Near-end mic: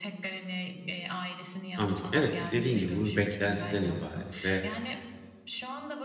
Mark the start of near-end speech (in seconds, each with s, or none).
1.8 s